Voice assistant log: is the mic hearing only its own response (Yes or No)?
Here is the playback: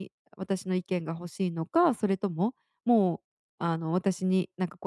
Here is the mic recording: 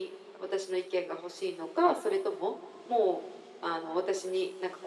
Yes